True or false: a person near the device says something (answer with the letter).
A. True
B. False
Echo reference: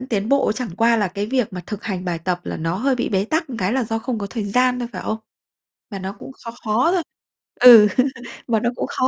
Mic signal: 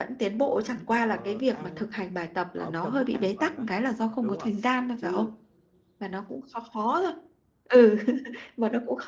A